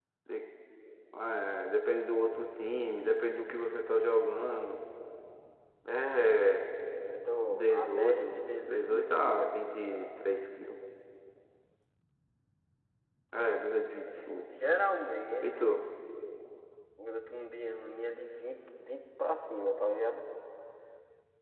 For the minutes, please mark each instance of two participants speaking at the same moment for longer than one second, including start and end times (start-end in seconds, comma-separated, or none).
7.5-9.5